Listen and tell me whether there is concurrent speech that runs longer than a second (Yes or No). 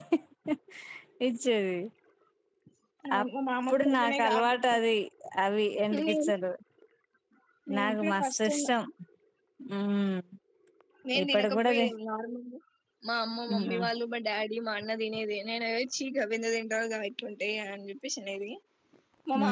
Yes